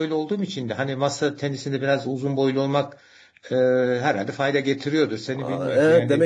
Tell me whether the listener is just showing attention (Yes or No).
No